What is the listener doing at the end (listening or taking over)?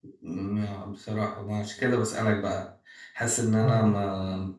listening